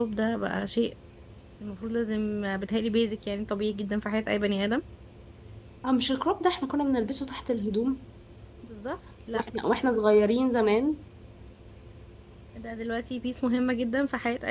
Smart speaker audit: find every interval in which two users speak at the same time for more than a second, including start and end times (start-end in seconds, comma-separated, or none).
none